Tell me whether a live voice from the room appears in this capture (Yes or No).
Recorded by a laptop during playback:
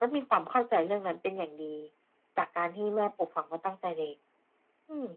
No